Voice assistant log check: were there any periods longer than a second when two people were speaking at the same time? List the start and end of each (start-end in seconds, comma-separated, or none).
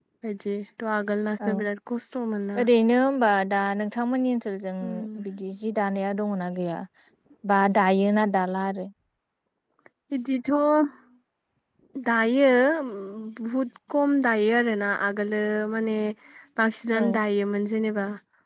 none